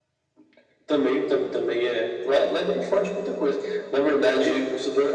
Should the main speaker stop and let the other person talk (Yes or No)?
No